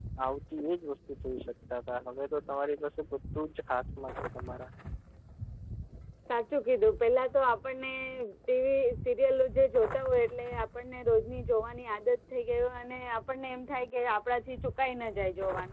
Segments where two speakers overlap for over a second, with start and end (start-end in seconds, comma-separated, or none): none